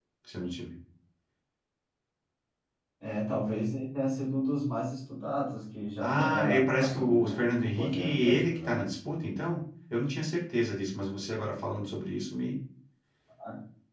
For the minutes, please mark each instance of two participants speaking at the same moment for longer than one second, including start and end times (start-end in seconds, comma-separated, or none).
6.0-8.7